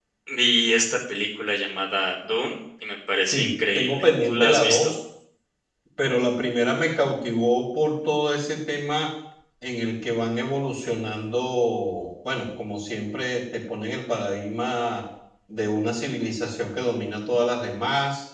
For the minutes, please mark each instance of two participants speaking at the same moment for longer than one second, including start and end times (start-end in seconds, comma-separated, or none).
3.2-5.0